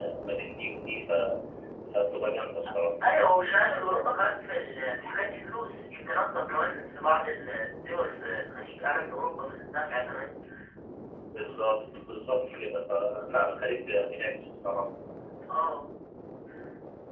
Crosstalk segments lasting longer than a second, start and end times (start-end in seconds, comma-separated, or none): none